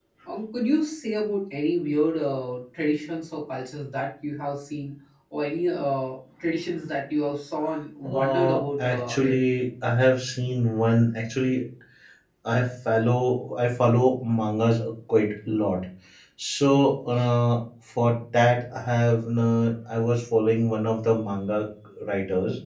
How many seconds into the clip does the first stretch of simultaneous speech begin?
8.0 s

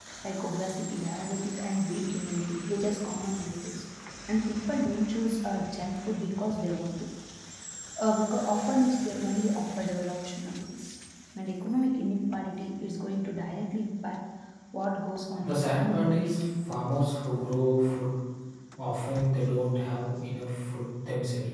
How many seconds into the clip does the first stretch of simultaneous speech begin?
15.4 s

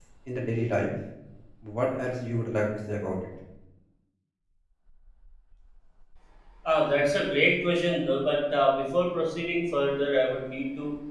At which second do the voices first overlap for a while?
none

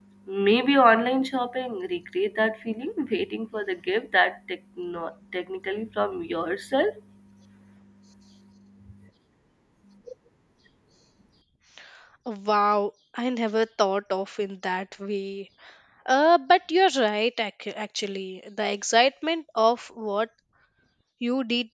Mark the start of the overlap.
none

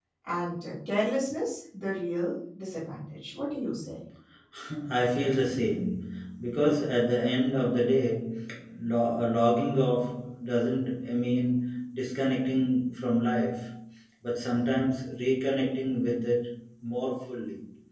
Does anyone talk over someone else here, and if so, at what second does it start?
none

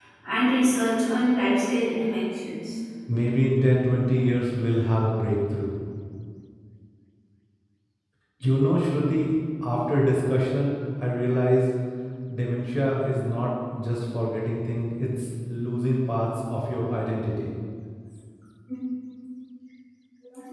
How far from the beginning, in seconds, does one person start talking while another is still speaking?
none

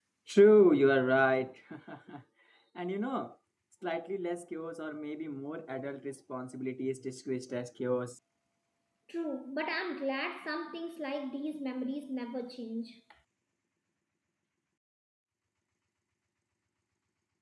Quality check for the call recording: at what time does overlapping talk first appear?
none

